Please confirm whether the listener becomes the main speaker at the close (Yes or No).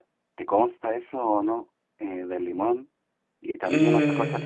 No